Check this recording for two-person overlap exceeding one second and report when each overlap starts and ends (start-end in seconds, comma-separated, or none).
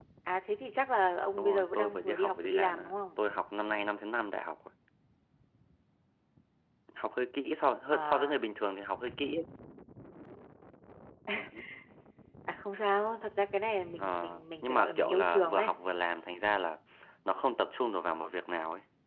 1.4-3.2, 14.0-15.7